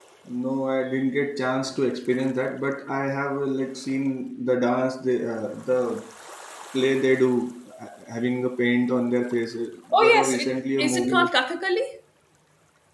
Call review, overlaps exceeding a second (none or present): present